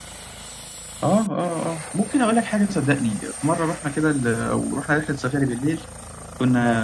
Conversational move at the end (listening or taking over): listening